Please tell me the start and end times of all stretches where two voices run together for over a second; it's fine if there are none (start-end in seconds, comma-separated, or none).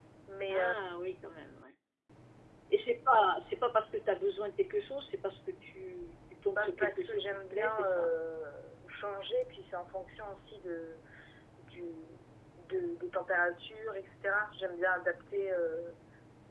6.6-8.1